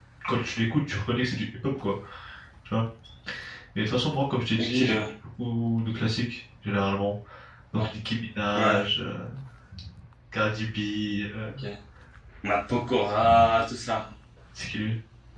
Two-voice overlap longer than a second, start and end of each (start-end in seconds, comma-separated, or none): none